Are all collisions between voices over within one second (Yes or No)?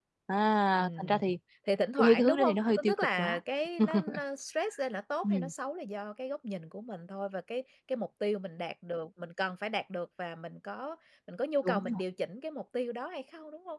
No